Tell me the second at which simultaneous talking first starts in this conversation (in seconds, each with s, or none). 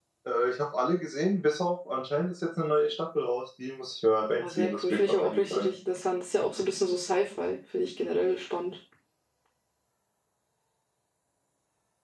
4.4 s